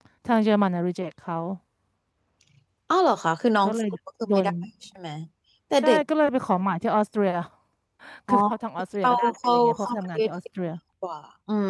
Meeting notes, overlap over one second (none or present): present